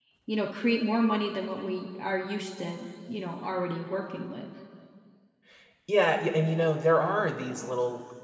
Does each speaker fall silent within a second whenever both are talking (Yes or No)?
Yes